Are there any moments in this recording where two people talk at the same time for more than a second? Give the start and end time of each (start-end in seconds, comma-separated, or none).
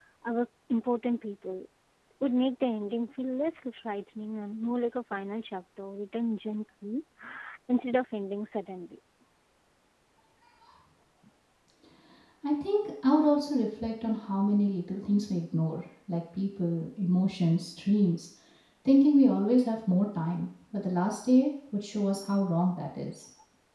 none